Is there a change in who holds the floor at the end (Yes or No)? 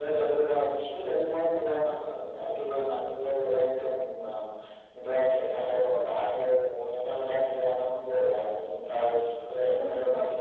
Yes